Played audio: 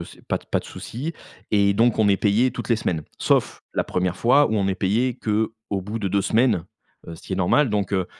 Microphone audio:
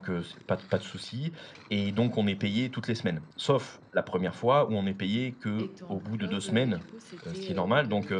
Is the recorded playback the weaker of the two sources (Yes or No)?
No